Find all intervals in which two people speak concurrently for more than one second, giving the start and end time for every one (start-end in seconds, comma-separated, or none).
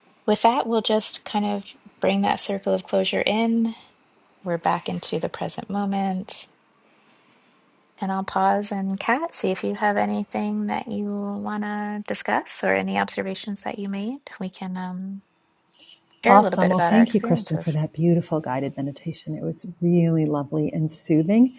16.3-17.8